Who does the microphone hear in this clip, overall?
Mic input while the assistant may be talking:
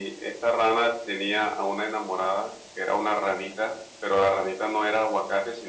echo only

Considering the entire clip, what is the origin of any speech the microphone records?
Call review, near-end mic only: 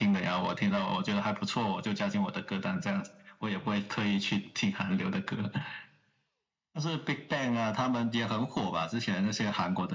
echo only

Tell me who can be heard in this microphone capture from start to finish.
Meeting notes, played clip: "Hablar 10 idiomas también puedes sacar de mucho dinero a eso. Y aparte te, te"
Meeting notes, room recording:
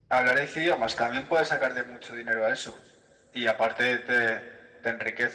echo only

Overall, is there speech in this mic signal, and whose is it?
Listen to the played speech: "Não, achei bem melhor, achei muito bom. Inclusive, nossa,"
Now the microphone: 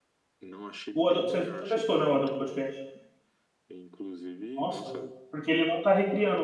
both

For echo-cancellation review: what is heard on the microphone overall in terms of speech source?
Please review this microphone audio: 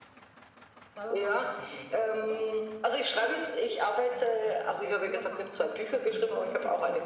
both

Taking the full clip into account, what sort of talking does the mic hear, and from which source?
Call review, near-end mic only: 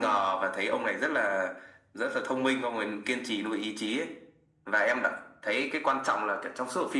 echo only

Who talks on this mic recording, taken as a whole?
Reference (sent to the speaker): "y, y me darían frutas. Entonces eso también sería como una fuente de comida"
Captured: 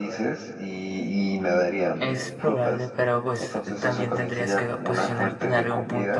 both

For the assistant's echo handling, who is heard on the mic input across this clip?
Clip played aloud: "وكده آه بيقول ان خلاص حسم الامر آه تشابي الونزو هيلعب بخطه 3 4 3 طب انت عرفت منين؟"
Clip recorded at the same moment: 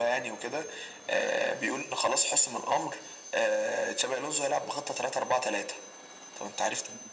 echo only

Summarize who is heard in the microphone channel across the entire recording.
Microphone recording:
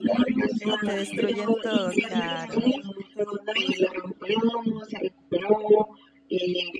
both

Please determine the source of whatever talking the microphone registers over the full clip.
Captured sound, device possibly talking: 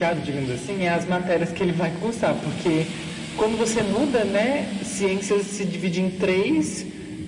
echo only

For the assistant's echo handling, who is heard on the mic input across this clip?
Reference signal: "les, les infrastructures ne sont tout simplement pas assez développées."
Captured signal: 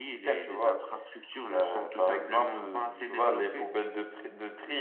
both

